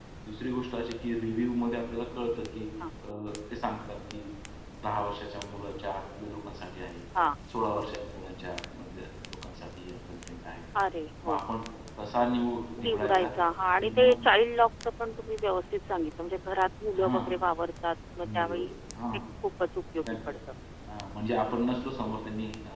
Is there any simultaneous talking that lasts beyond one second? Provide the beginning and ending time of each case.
none

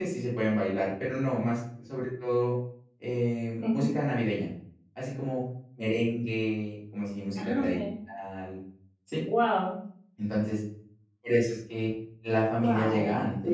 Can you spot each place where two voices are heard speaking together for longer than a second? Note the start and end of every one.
none

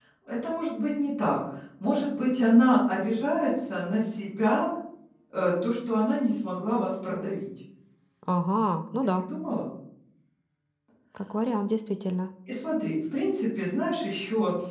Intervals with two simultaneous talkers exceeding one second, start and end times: none

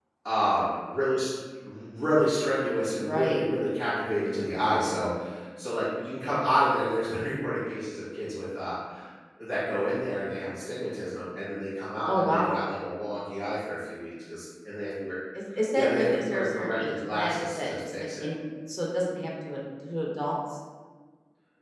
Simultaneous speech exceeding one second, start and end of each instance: 15.8-18.3

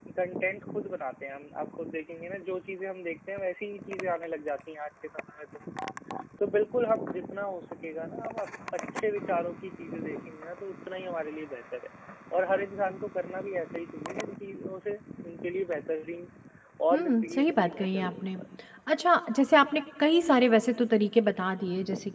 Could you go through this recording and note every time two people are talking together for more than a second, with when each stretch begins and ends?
16.9-18.2

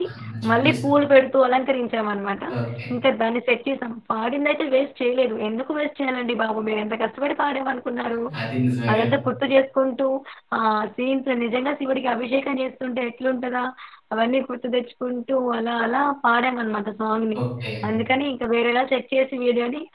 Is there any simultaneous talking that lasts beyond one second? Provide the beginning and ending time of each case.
none

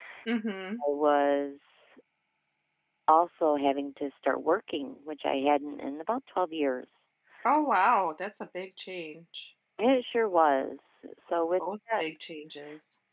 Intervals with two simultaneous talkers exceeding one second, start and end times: none

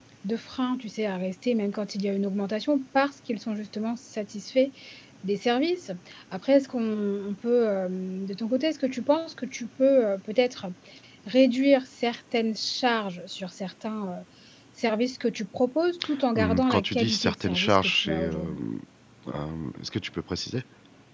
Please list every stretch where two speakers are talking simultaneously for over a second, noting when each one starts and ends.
16.4-18.6

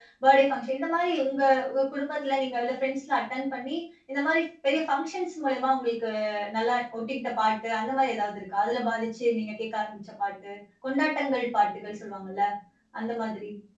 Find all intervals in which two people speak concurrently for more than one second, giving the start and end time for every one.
none

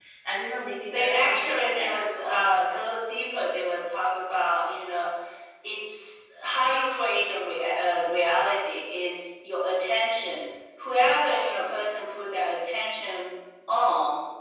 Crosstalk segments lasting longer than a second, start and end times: 0.9-2.5

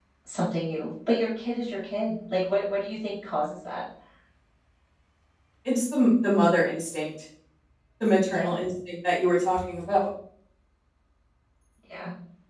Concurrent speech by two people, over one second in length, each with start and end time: none

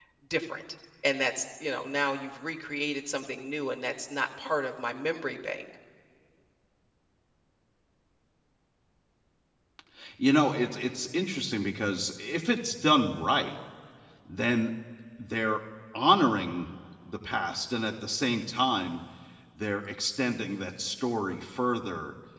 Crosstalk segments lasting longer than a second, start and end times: none

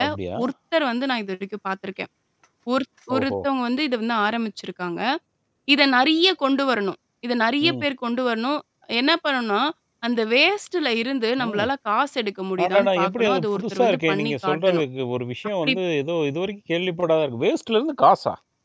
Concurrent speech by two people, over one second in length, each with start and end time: 12.6-14.8

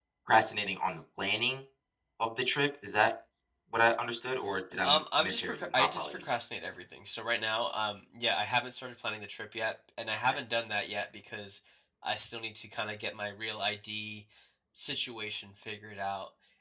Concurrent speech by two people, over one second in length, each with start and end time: 4.8-6.3

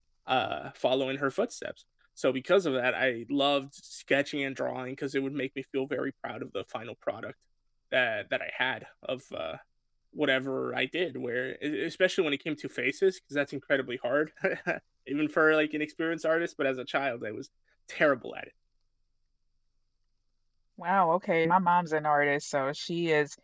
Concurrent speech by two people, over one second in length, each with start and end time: none

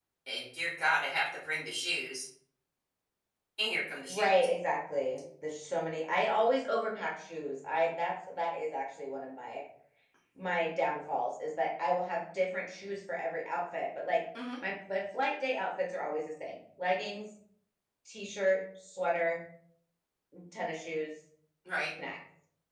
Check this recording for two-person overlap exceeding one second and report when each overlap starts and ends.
none

